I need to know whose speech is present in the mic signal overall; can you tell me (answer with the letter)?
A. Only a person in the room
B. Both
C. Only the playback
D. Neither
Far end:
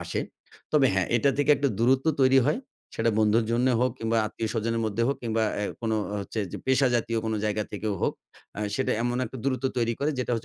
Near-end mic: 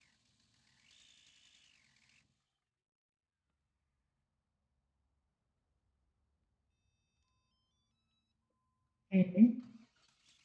A